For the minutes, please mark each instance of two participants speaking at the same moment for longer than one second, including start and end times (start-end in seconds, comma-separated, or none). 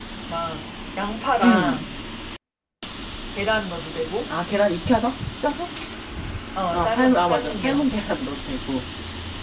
6.7-7.9